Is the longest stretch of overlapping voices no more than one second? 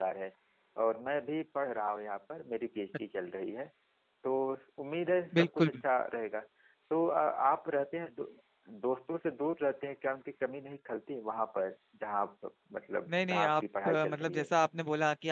No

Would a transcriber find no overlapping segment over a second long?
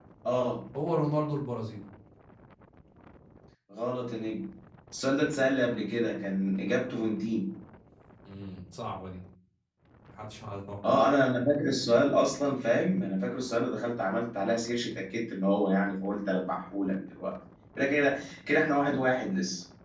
Yes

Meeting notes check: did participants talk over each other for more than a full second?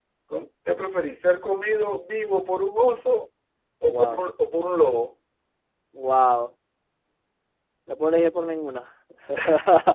No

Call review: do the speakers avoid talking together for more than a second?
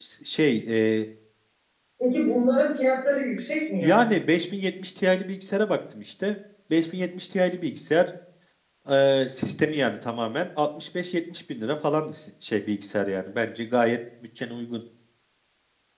Yes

